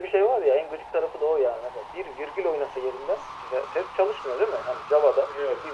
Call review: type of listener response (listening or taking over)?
listening